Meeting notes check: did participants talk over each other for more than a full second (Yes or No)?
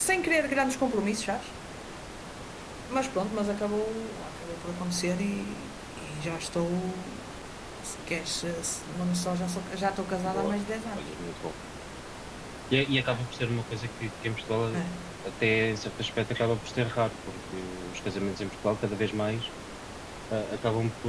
No